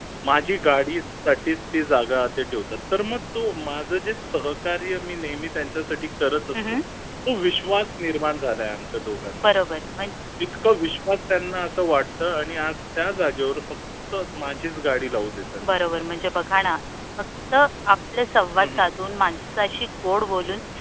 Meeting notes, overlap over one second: none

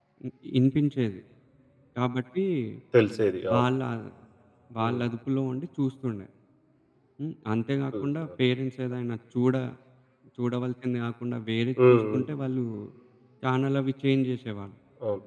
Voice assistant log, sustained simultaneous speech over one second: none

